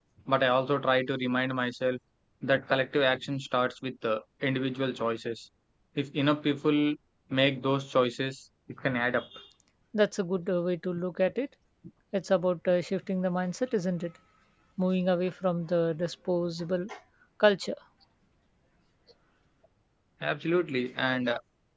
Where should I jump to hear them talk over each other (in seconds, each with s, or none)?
none